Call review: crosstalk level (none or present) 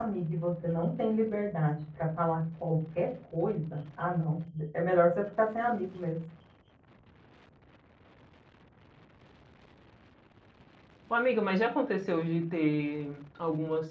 none